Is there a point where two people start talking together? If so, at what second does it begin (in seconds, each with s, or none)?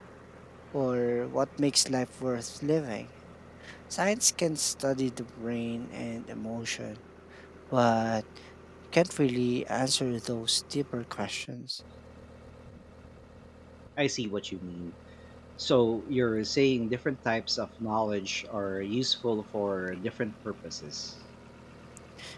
none